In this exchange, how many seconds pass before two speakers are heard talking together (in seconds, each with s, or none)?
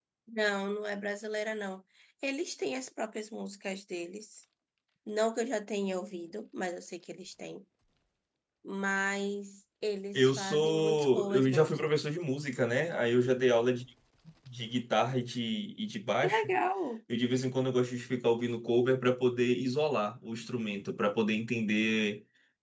10.2 s